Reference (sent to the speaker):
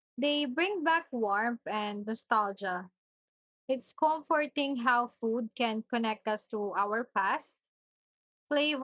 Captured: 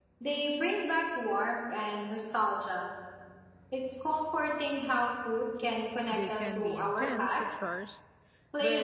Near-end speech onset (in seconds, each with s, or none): 6.1 s